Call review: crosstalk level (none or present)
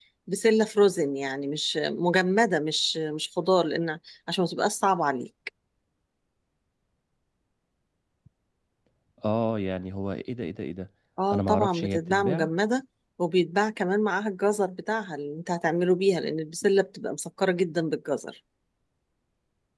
present